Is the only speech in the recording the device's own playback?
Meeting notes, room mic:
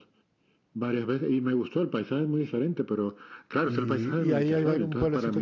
No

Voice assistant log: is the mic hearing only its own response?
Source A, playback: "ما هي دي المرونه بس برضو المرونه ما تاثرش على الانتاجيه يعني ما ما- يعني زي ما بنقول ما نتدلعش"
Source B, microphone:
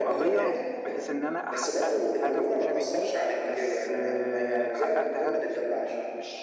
No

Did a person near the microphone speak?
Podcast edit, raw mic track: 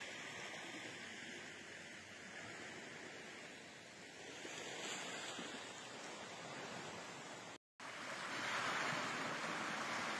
No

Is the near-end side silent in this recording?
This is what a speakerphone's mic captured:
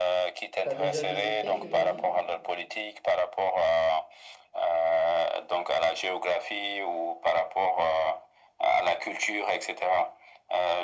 No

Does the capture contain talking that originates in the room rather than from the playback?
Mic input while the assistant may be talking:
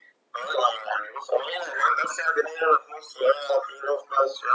No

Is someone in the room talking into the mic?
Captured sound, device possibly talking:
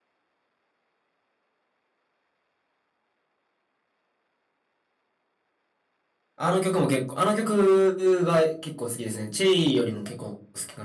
Yes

